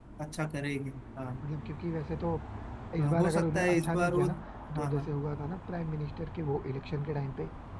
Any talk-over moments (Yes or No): Yes